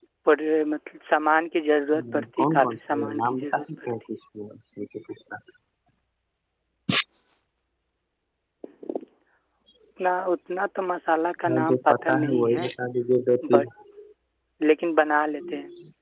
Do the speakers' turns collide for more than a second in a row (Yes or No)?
Yes